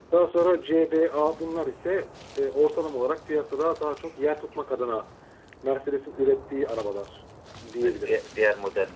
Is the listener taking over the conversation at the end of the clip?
Yes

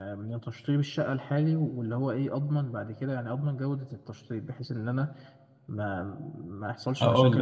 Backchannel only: Yes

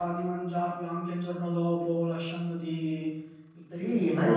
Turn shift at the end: Yes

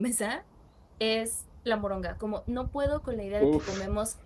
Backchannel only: Yes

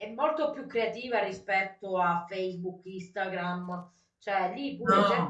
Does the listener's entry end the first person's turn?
No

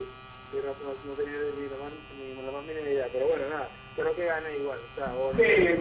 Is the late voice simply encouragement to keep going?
No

